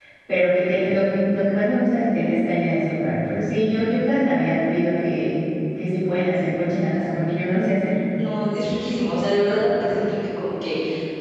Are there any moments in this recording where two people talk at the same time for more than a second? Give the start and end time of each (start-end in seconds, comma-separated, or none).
none